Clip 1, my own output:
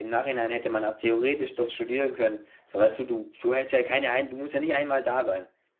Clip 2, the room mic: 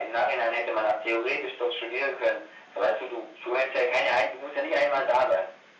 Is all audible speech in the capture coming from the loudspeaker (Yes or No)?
Yes